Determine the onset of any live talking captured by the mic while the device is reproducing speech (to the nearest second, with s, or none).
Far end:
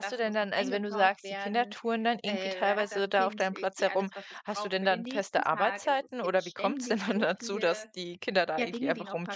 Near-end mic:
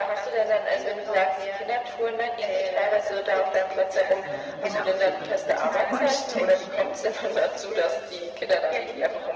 4 s